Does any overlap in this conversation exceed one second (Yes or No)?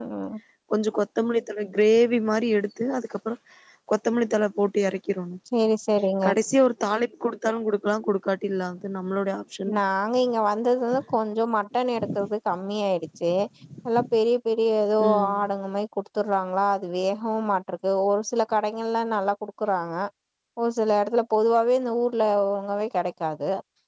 No